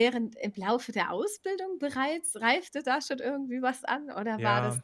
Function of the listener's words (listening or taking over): listening